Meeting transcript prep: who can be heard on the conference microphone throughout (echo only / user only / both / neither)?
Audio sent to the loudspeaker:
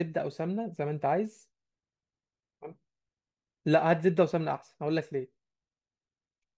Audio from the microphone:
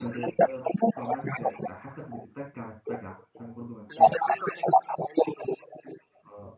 both